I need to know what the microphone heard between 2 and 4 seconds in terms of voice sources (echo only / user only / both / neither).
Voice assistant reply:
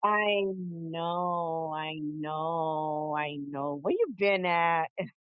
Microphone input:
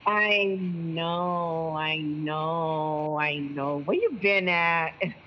echo only